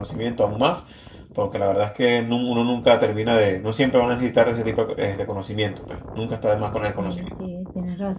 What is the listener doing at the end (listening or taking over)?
taking over